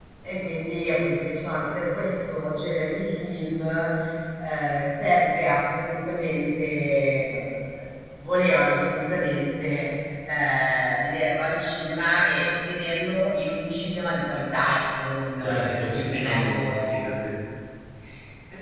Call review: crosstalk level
present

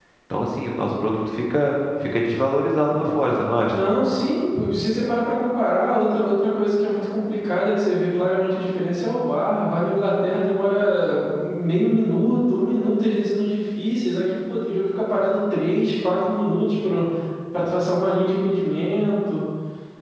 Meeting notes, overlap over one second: none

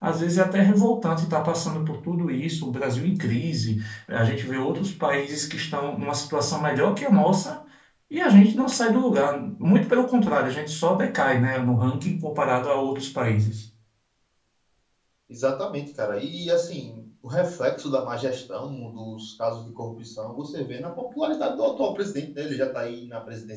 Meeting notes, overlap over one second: none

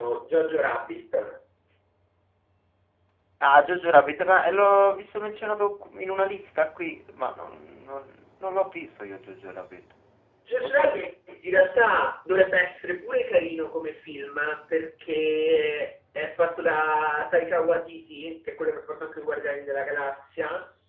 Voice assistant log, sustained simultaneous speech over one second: none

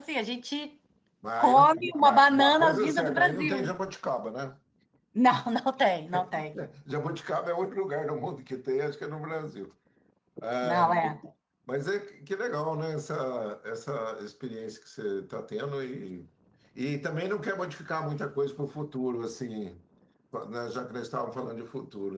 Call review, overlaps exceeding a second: present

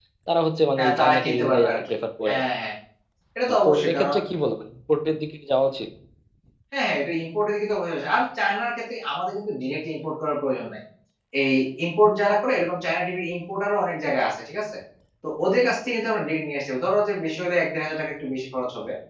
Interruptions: present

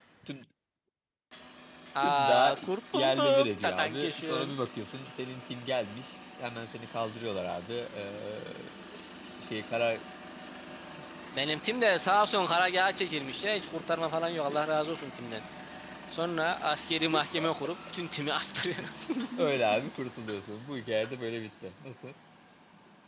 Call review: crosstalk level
present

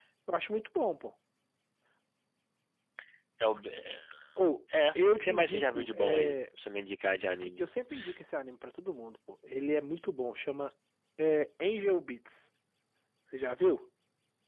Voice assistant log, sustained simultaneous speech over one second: present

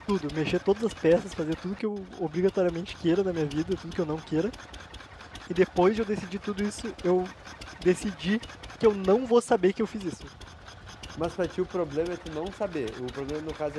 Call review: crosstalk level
none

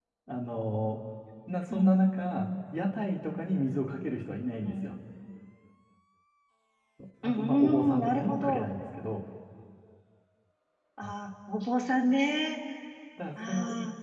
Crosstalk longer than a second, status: present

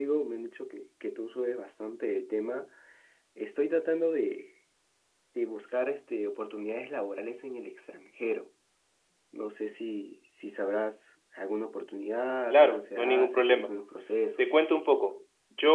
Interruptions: present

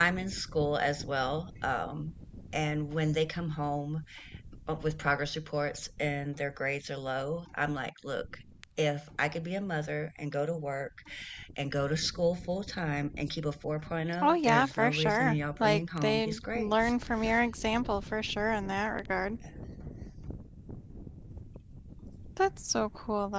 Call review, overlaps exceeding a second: present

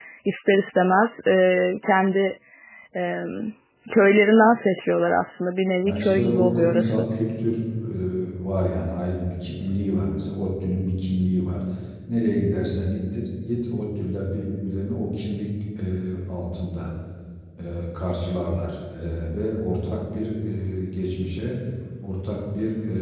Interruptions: present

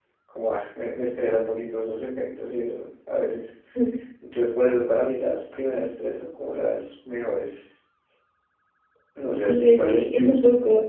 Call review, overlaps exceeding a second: present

